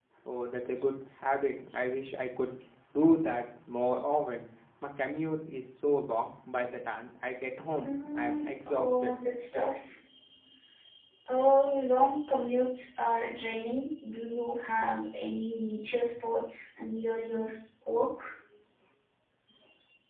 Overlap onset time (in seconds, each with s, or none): 7.8 s